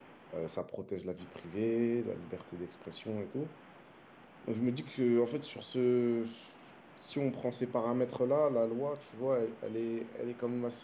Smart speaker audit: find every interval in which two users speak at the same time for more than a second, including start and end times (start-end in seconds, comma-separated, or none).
none